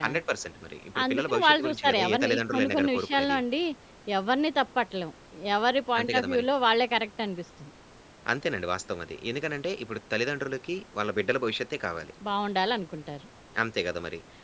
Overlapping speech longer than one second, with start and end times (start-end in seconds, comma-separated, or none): 1.1-3.4